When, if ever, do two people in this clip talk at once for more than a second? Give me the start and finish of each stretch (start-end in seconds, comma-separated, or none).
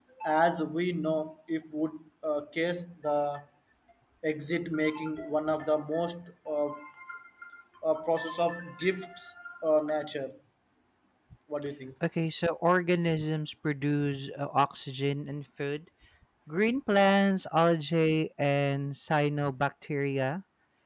none